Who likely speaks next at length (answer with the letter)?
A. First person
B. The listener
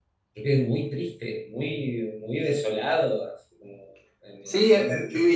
B